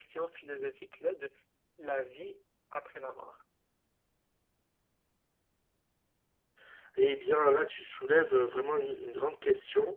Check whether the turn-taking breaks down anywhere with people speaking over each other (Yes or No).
No